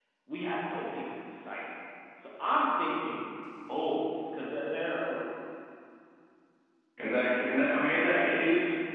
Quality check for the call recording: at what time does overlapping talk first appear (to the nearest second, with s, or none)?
none